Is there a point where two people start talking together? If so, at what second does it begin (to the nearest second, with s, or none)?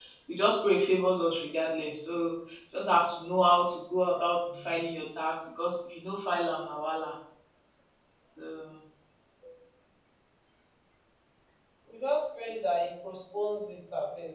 none